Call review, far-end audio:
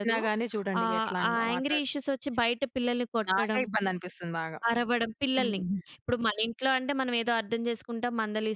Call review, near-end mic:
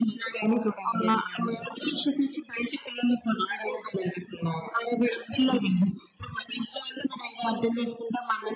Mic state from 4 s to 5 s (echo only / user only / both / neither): echo only